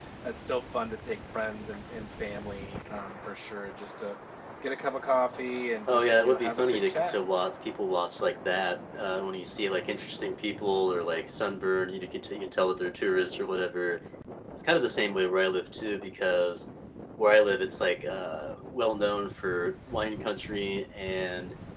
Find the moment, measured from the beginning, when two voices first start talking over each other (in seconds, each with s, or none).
5.9 s